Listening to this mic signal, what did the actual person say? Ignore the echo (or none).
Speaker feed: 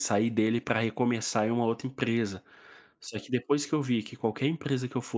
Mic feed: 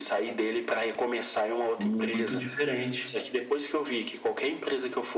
muito diferente.